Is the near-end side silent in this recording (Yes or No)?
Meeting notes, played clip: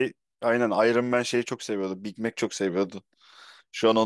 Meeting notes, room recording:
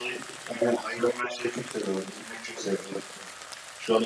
Yes